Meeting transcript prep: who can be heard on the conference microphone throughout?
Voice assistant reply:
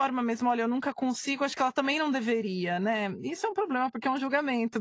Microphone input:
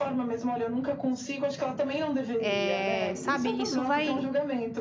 both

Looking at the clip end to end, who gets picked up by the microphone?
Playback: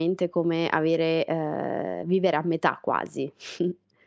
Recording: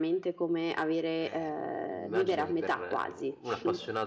both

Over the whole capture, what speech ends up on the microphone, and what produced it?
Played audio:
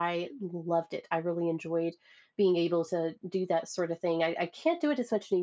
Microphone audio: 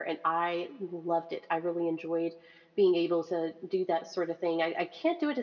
echo only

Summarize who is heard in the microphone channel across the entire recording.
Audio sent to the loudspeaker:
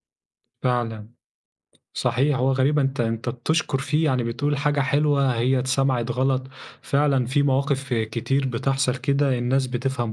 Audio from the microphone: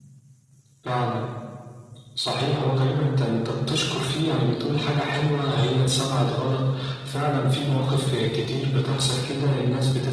echo only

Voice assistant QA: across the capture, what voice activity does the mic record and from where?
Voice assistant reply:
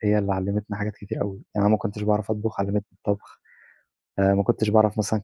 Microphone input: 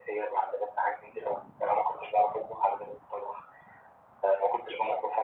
echo only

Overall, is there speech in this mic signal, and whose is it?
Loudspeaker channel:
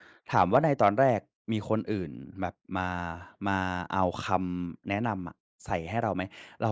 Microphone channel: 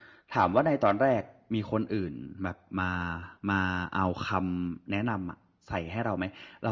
echo only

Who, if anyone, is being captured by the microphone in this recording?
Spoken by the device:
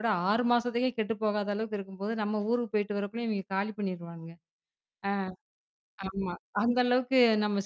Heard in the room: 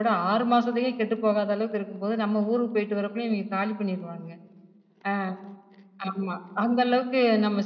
echo only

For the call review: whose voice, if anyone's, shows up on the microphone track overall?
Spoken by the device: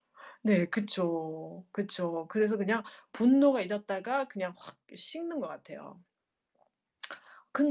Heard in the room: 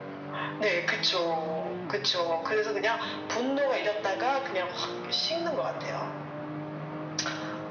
echo only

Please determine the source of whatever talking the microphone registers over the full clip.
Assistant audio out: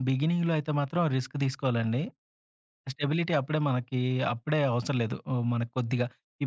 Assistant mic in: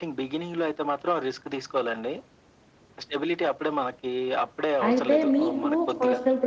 both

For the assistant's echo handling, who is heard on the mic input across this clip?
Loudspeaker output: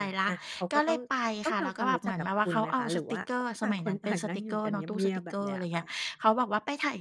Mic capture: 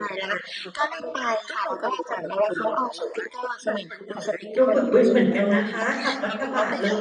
both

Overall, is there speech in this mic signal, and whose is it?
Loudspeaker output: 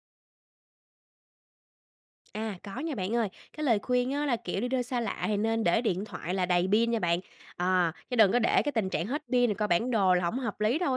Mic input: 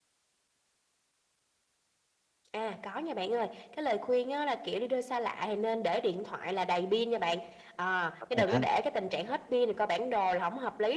both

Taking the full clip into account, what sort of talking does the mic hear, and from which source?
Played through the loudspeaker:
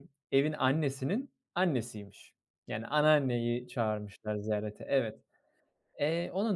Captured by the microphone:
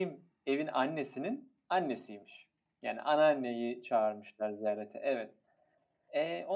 echo only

